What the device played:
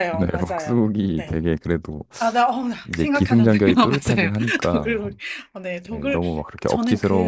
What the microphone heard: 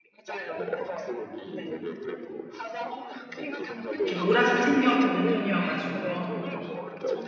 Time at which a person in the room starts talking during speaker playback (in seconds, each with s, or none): 4.0 s